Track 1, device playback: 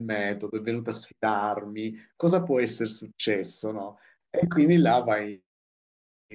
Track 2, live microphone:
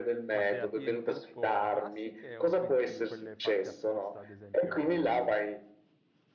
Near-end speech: present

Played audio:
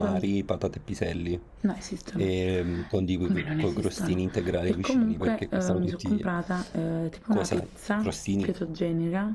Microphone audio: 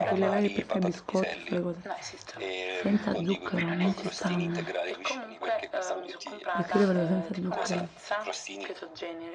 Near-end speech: present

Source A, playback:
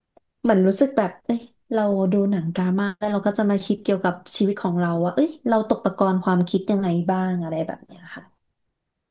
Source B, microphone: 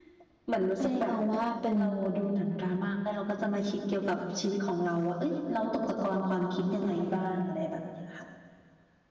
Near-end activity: present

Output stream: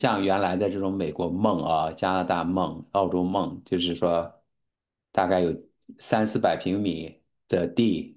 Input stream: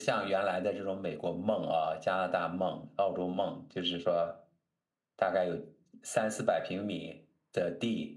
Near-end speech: none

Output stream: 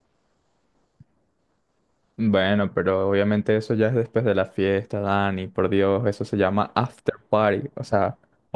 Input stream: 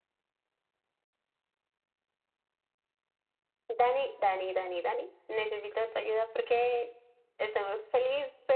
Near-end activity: present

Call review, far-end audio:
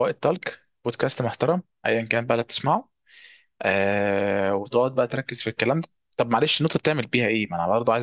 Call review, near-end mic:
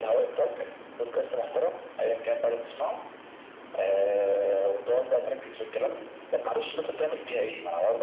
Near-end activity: none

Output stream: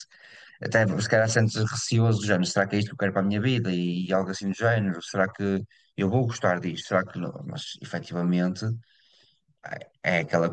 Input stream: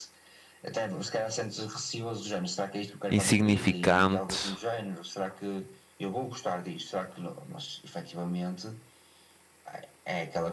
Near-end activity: present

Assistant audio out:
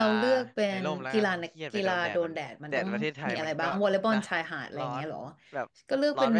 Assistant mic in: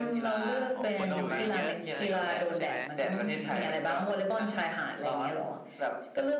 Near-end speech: present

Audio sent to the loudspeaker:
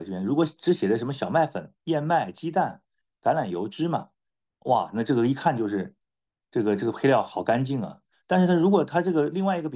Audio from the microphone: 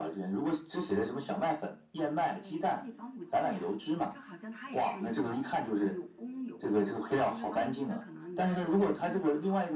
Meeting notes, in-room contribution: present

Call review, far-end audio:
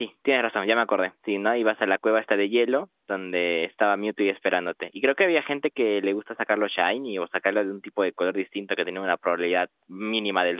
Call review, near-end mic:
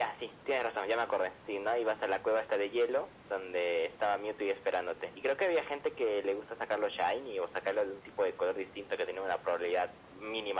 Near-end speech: none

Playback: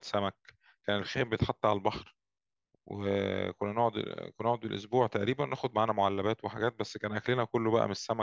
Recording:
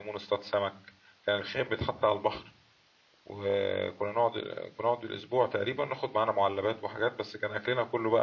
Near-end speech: none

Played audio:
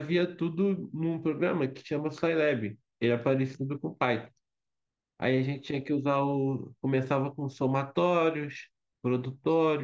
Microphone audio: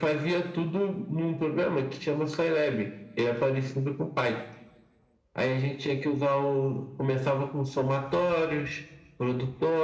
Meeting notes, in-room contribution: none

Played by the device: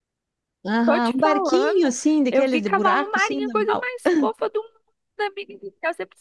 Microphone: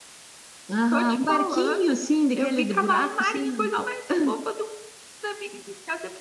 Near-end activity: none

